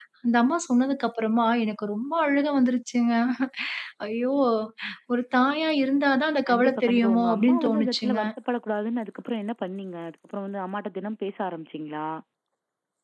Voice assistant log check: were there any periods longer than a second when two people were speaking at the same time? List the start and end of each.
6.5-8.2

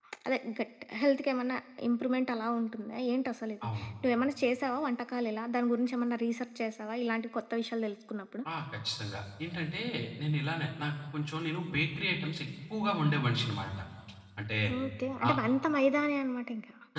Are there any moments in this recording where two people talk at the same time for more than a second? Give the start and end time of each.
none

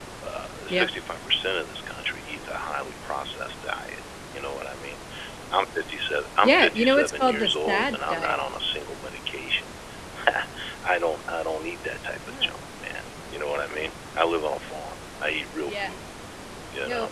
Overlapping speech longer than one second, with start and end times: 6.4-8.4

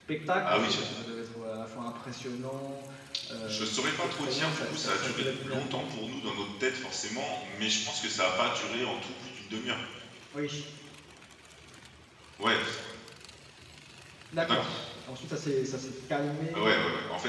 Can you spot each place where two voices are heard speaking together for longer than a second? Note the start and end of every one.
3.5-5.8

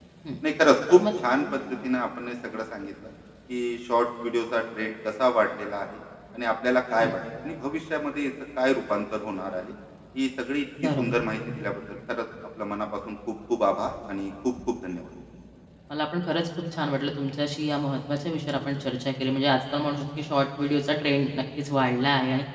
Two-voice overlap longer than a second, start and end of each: none

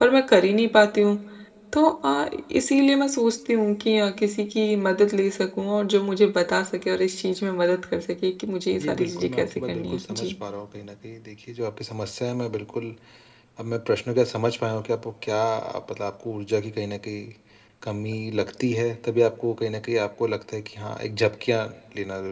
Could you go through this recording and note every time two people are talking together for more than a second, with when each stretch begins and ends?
8.8-10.3

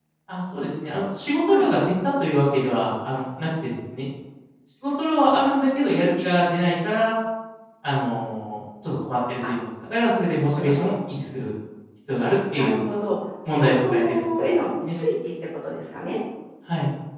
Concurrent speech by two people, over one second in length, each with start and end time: 13.5-15.0

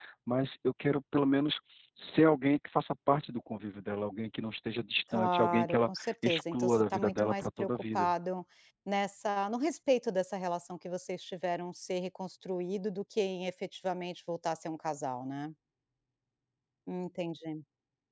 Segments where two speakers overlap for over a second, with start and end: 5.1-8.1

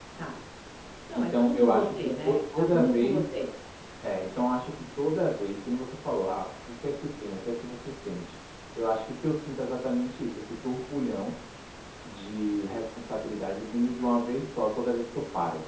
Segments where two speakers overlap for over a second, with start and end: 1.2-3.2

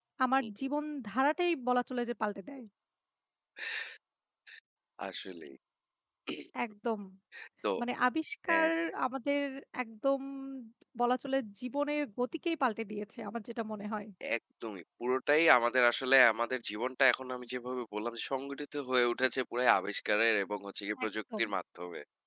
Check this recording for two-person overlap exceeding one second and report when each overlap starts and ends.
none

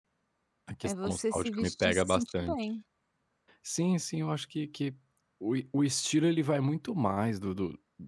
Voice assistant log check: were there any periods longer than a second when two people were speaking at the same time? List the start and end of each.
0.8-2.5

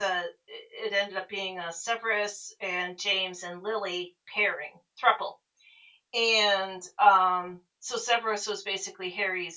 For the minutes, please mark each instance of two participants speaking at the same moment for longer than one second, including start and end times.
none

